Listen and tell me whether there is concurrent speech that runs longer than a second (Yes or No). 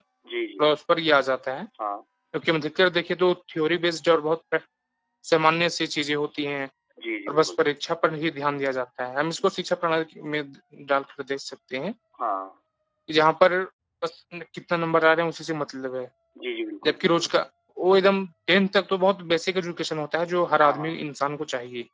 No